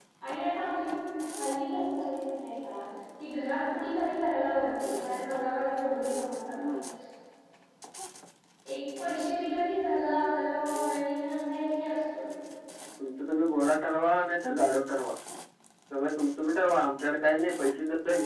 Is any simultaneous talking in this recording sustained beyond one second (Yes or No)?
No